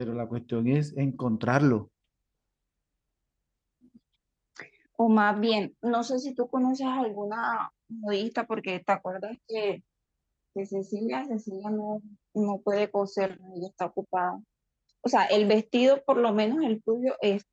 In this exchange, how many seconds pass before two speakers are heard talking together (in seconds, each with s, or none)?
none